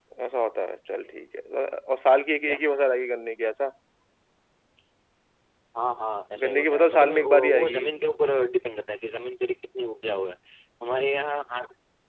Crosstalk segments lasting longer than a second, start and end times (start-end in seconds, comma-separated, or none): 6.4-7.8